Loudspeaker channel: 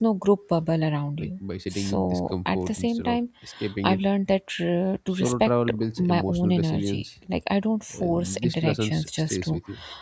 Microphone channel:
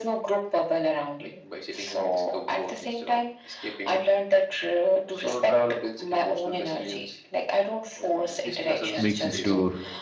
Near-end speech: present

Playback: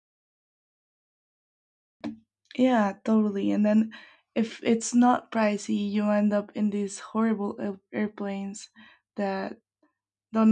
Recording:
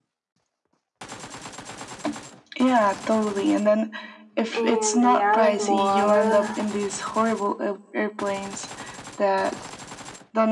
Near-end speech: present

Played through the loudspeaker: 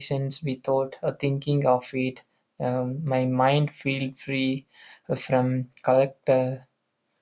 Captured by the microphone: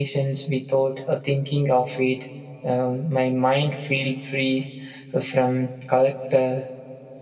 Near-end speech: none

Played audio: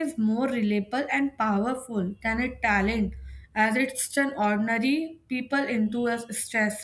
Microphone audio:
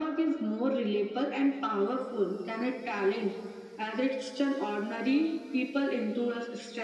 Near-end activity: none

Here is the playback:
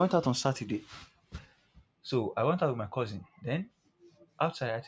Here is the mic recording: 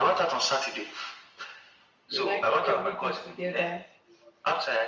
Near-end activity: present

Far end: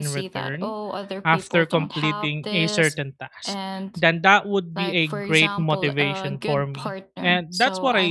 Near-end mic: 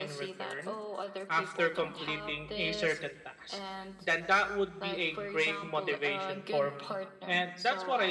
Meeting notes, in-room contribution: none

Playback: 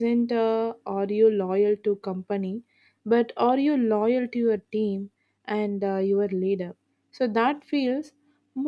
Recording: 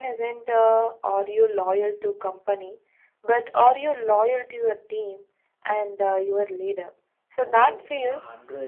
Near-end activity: present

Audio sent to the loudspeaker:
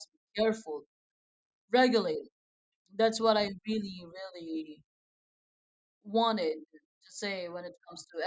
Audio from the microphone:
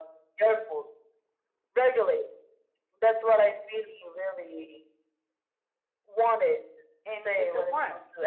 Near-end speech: present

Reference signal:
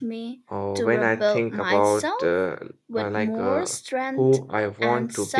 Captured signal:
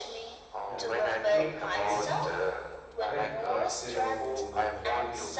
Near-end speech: present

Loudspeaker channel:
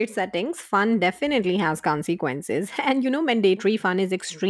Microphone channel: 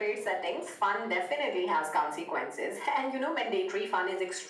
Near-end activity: none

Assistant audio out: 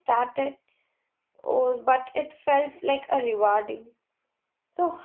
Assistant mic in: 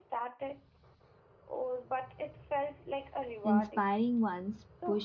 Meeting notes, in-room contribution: present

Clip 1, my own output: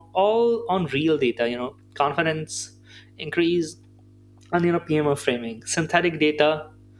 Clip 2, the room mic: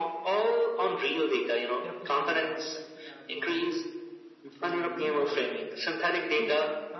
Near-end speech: present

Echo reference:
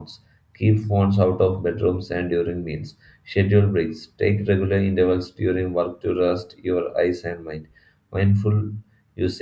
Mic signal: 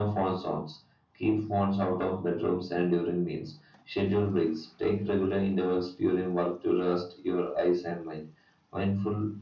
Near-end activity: none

